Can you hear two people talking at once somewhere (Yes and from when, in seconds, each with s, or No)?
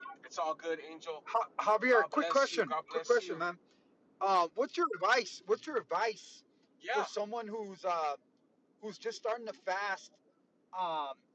Yes, from 1.9 s